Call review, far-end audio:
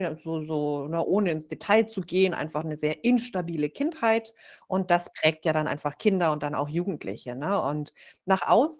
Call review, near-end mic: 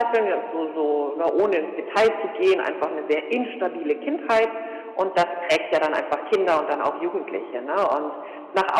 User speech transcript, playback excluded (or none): none